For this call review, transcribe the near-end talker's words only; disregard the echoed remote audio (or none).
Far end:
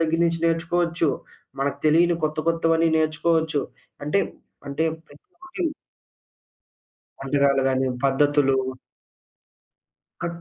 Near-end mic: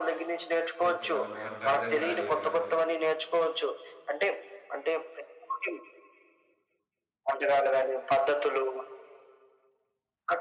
ఓకే. వాళ్ళ మాటలు అర్థం కాయేవి కాదు.